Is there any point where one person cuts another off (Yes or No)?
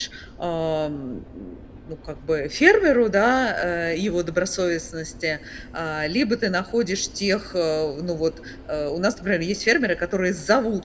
No